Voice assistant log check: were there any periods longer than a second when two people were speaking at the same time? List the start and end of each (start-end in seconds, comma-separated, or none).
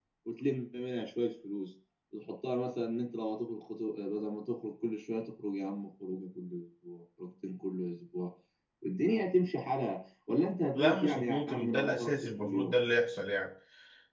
10.7-12.7